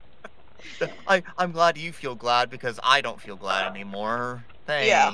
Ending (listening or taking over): taking over